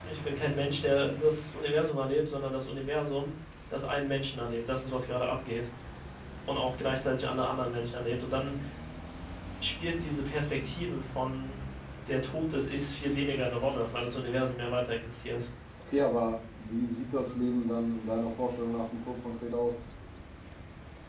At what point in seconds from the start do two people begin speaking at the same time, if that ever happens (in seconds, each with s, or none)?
none